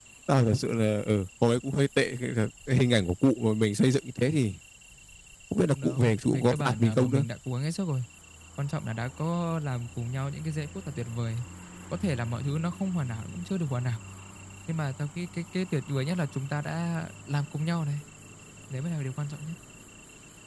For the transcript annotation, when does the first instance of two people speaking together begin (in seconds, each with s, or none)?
5.7 s